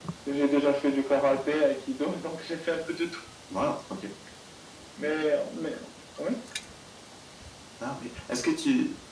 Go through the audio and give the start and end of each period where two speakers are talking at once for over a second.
none

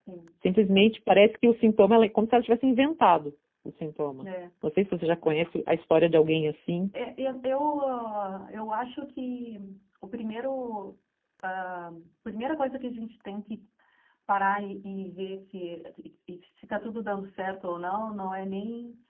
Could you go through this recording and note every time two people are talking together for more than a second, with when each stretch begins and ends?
none

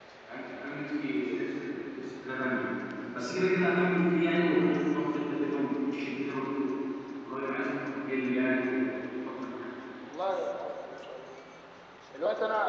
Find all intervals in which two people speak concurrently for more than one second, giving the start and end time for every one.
none

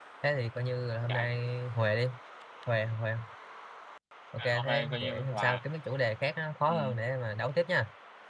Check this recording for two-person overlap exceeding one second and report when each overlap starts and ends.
4.4-5.6

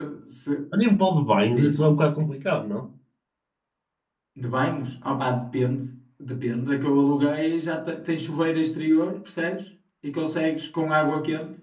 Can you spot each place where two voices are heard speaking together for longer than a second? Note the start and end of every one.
none

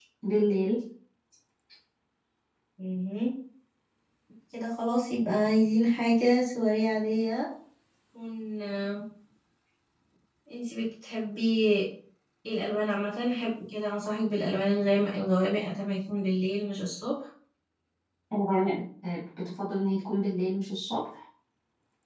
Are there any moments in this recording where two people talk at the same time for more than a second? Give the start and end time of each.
none

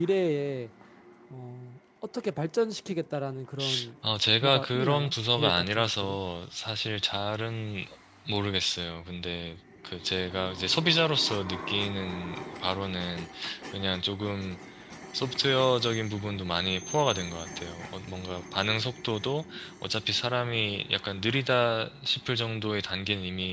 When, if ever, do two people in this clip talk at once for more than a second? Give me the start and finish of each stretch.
4.4-6.2

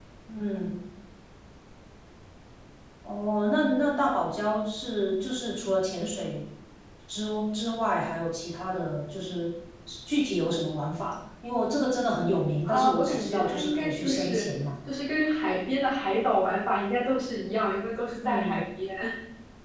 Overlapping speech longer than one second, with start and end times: 12.6-14.5

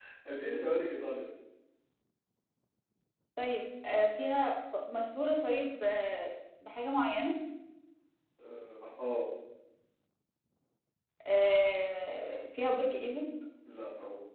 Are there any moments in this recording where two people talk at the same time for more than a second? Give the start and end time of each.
none

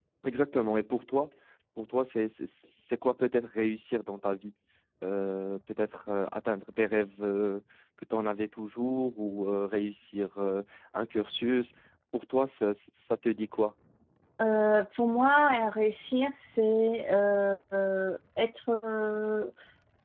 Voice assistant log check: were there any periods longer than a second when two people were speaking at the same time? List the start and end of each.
none

